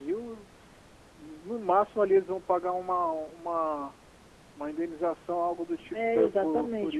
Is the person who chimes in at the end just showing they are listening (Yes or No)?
No